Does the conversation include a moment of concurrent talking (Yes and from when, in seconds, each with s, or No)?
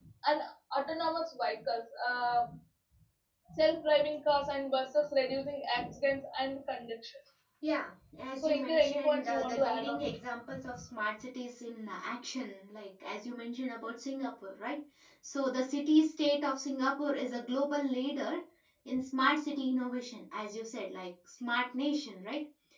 Yes, from 8.4 s